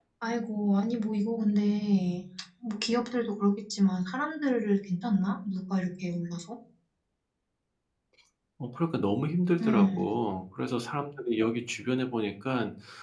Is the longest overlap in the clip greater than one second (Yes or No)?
No